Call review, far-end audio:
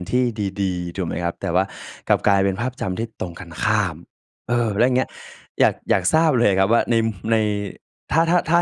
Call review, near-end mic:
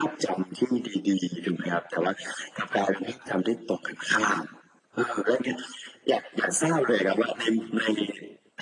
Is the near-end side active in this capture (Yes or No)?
No